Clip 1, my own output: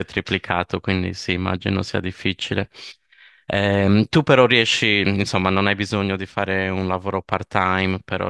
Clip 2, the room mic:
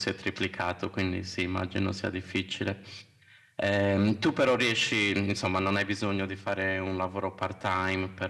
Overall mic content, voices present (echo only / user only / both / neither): echo only